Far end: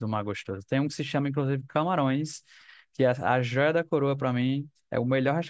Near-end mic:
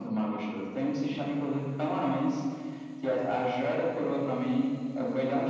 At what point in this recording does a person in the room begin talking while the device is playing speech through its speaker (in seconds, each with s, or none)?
none